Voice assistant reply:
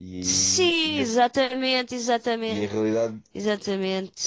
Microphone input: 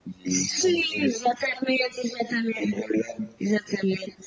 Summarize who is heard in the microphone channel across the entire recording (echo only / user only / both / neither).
both